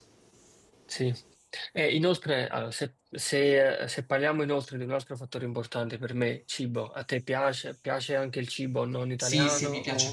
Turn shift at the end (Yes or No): Yes